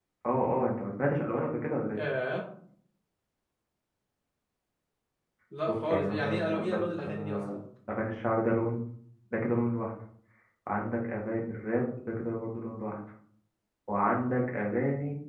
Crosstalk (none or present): present